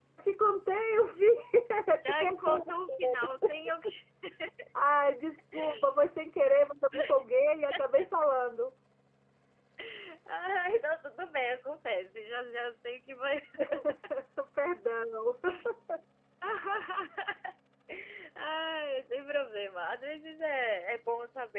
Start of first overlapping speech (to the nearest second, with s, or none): 2 s